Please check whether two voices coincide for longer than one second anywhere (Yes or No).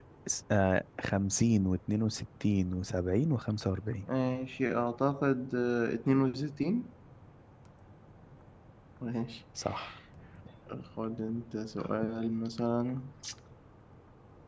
No